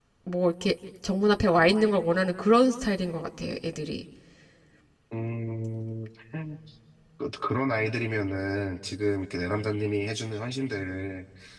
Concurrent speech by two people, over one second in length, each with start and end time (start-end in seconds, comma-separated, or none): none